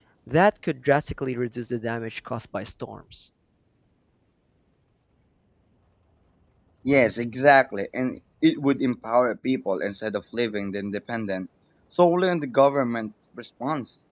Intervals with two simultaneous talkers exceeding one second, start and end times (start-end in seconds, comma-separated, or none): none